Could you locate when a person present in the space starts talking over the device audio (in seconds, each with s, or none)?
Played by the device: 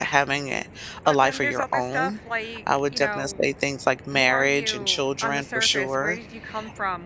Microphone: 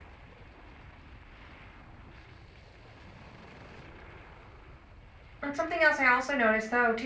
5.4 s